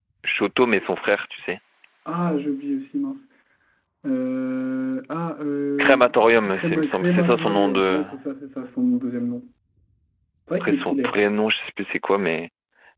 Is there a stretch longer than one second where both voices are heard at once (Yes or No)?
Yes